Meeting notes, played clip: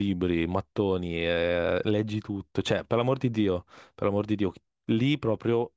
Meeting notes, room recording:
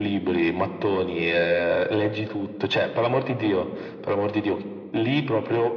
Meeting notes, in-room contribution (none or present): none